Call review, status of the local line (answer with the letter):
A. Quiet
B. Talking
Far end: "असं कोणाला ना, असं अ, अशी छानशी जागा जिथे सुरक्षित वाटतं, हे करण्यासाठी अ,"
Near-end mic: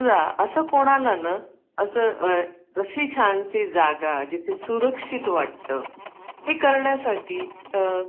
A